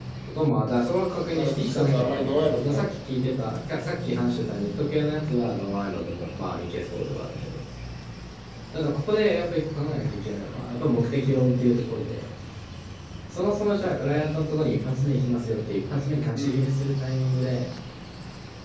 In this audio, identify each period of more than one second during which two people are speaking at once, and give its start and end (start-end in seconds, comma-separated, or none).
1.3-2.8